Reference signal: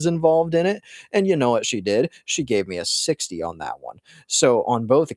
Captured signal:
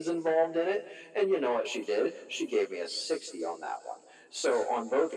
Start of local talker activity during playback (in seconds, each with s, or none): none